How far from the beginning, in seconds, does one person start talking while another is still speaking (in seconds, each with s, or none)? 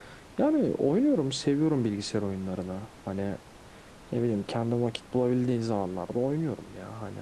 none